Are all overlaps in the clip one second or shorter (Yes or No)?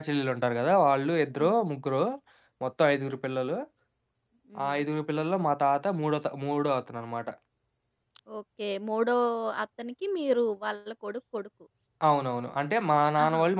Yes